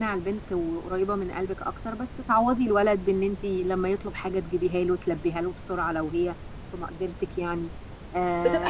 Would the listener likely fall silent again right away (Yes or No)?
No